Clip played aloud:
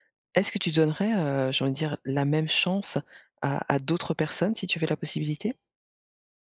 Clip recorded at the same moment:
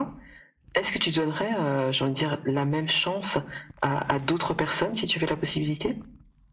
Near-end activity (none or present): none